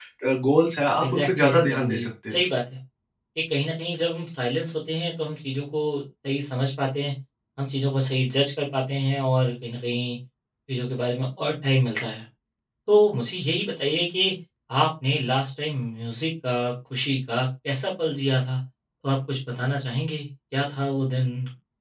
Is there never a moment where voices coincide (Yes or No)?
No